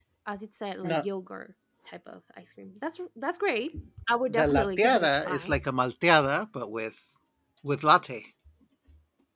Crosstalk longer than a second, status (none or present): present